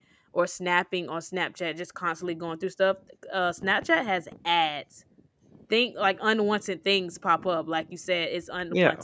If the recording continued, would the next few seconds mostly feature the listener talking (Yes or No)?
No